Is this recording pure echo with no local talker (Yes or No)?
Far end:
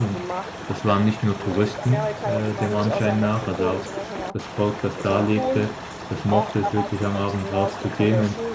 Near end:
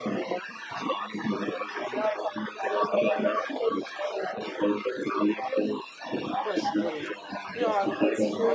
No